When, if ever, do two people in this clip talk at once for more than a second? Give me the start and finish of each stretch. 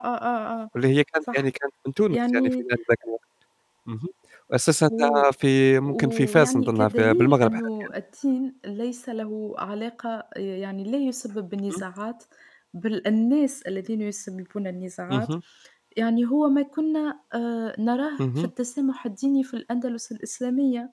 5.8-7.9

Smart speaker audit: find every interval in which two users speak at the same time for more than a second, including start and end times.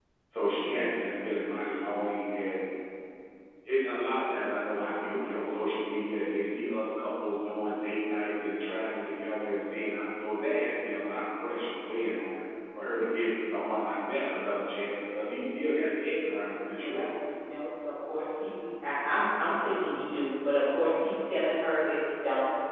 none

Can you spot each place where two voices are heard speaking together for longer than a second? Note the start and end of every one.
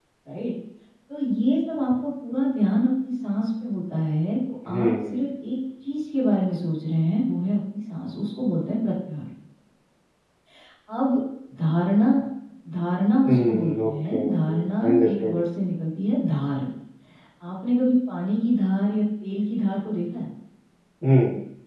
13.3-15.4

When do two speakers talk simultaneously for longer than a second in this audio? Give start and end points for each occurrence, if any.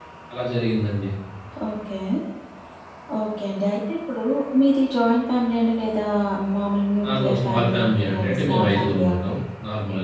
7.0-9.2

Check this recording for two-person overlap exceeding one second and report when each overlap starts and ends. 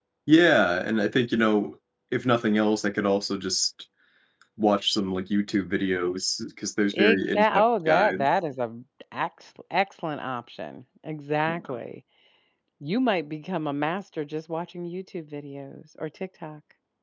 6.9-8.3

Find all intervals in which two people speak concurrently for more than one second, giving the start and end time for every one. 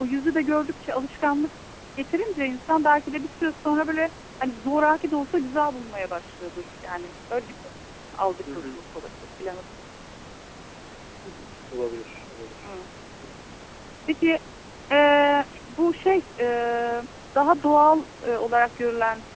none

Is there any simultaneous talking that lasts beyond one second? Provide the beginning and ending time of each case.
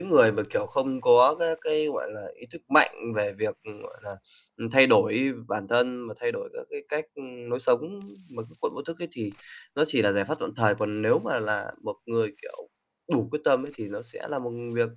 none

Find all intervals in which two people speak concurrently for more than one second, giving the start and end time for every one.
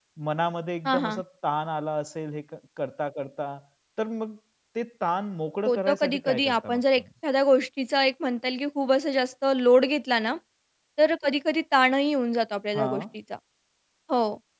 5.7-7.0

